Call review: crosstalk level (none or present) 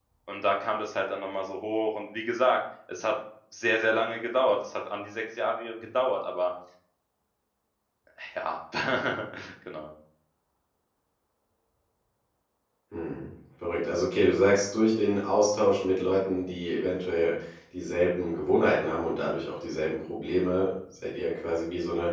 none